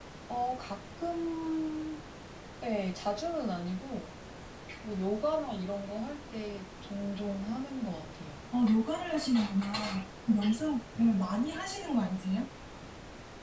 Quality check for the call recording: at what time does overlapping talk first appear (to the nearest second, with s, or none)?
none